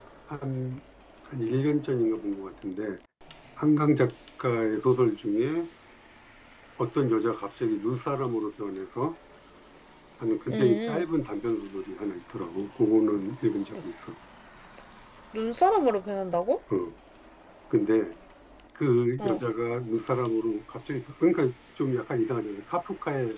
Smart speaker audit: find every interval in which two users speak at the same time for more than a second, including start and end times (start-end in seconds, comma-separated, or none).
none